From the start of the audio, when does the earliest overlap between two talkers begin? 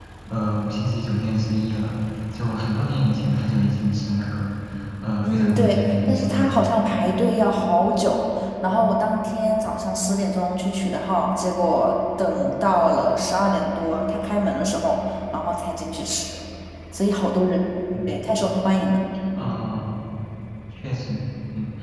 5.2 s

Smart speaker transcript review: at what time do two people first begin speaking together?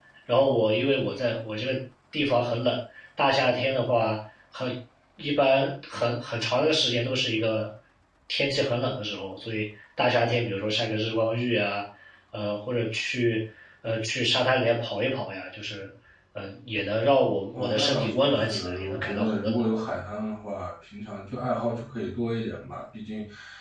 17.5 s

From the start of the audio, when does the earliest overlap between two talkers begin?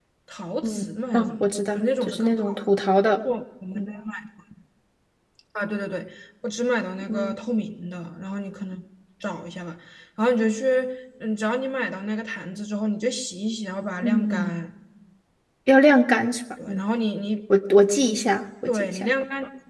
0.6 s

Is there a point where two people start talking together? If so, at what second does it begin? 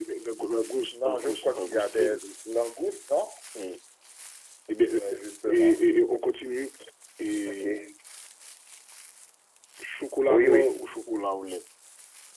0.9 s

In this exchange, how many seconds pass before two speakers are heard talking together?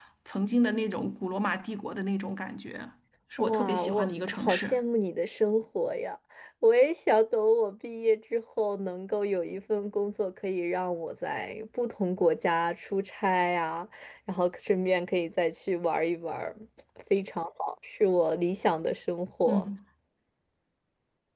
3.4 s

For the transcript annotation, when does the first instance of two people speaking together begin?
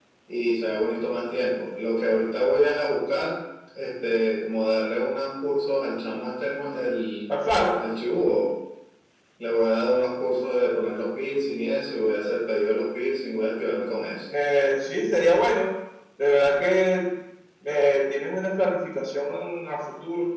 none

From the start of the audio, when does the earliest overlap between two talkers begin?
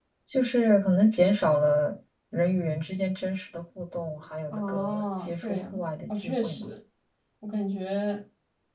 4.5 s

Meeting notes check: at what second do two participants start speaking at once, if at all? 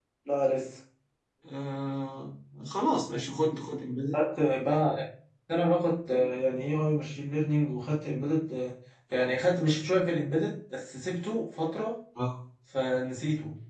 none

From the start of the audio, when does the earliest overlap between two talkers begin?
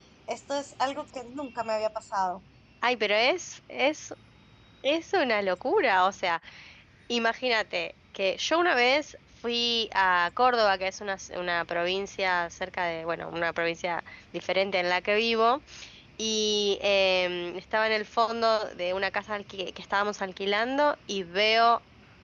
none

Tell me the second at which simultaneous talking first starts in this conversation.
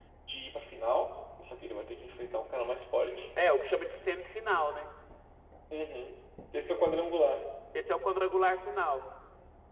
none

